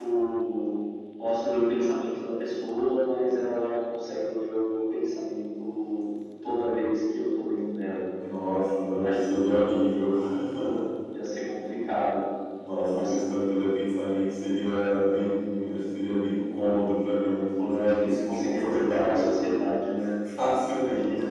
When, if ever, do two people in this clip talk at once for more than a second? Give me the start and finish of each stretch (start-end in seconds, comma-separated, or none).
17.6-19.3